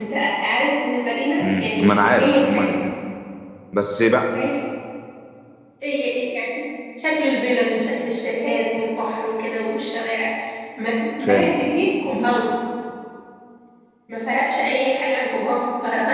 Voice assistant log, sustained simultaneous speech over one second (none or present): present